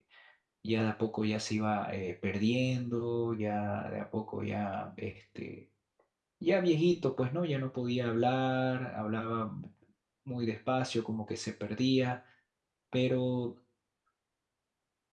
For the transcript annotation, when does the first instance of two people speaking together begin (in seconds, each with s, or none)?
none